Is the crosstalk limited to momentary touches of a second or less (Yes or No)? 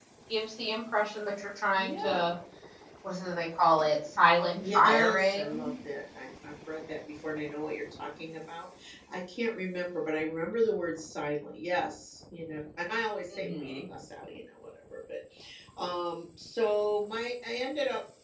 No